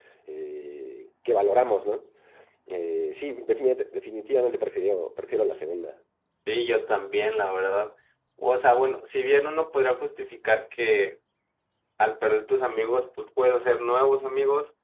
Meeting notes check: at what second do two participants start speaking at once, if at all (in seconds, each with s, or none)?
none